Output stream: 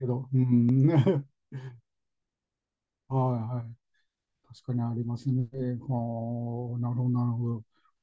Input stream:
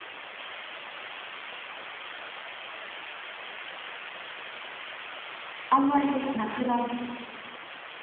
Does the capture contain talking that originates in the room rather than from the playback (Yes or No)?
Yes